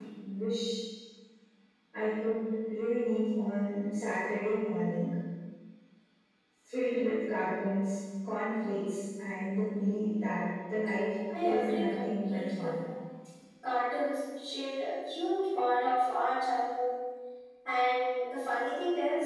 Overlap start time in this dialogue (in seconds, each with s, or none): 11.3 s